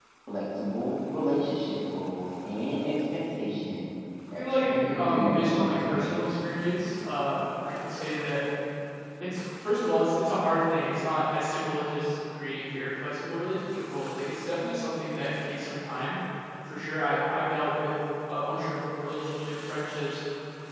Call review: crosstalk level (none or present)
present